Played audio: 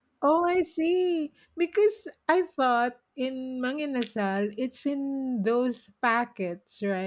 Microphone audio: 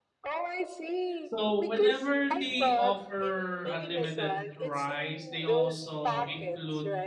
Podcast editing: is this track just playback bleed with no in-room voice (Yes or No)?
No